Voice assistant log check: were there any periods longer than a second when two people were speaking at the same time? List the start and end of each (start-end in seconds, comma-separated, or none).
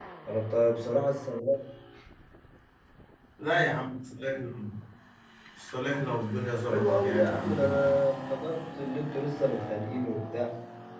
6.5-7.9